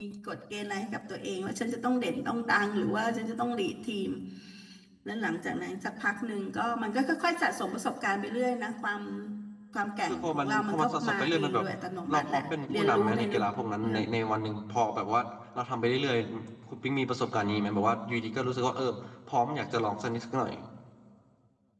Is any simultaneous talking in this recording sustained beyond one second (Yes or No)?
Yes